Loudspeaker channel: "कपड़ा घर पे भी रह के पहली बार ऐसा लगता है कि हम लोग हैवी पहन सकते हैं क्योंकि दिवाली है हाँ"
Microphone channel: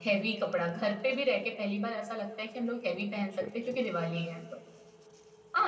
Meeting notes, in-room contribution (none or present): present